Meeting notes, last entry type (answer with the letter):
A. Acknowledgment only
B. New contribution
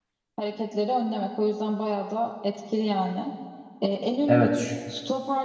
A